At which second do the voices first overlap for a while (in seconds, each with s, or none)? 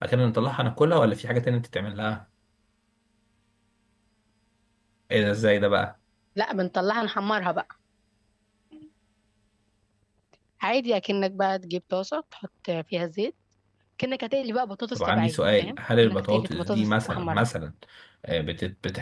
15.0 s